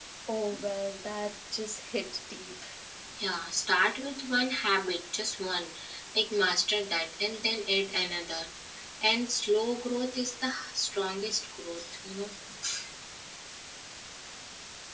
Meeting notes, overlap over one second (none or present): none